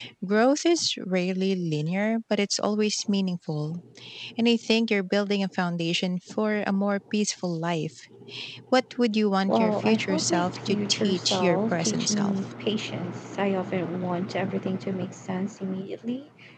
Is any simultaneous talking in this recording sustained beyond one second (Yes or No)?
Yes